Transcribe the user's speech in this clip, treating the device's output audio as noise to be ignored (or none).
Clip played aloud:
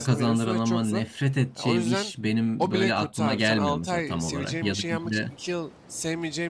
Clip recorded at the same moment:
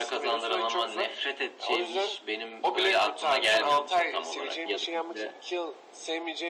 none